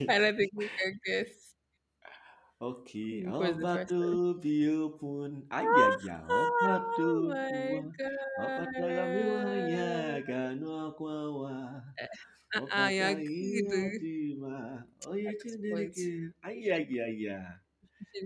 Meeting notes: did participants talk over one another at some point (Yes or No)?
Yes